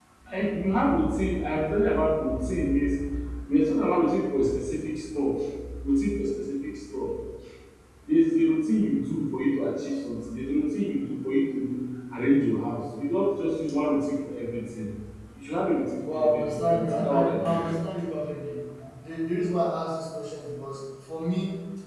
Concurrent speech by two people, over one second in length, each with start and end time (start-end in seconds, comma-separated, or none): 16.1-17.6